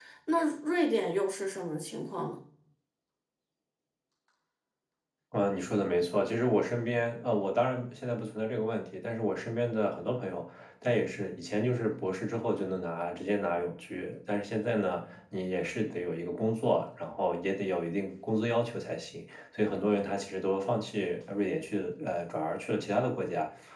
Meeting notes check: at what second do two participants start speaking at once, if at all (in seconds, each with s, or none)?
none